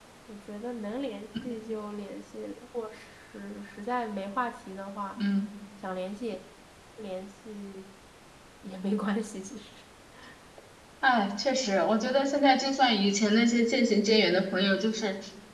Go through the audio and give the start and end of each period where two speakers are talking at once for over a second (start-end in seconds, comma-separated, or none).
none